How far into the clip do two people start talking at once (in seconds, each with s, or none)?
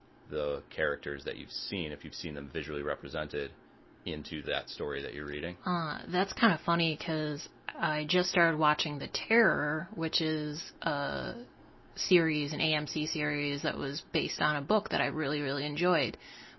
none